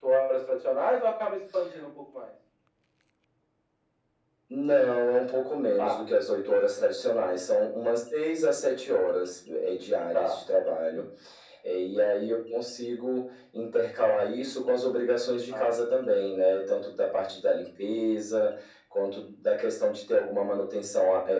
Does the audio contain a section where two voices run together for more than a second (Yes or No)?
No